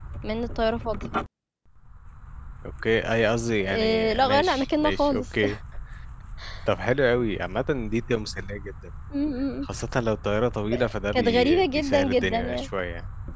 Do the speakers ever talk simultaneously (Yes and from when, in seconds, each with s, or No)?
Yes, from 3.6 s